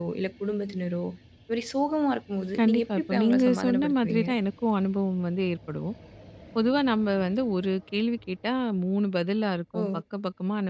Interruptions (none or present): present